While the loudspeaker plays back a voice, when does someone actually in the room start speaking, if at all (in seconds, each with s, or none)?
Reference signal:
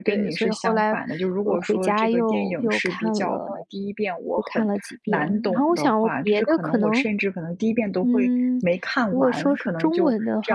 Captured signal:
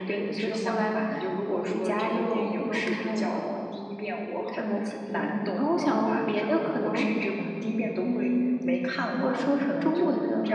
none